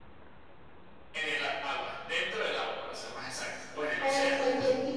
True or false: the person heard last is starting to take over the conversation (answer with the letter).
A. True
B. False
A